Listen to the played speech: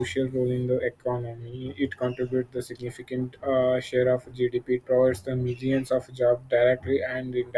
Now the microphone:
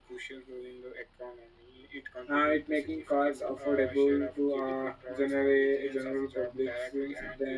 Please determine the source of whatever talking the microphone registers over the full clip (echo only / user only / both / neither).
both